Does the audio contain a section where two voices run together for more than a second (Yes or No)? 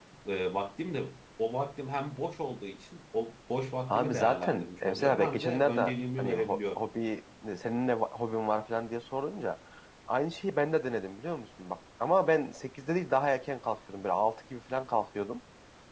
Yes